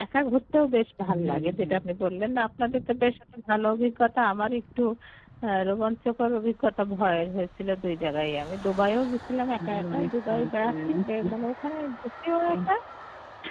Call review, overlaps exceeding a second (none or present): present